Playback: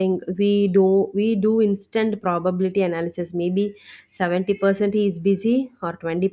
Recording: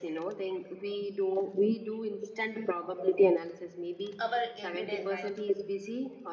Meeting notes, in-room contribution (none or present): present